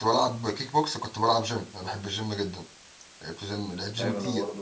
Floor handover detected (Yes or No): Yes